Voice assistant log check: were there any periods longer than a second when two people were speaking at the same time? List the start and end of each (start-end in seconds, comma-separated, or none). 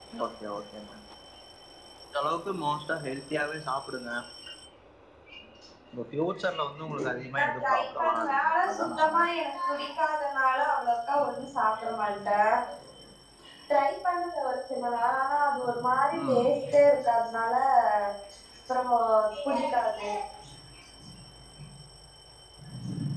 7.4-9.3